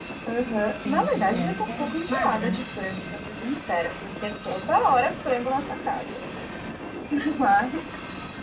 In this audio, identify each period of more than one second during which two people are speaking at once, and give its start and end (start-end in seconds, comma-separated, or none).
0.8-2.6